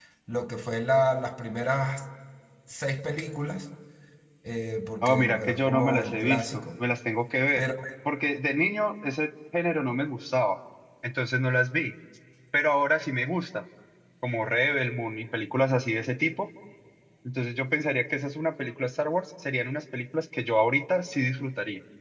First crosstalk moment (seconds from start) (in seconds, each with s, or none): 5.0 s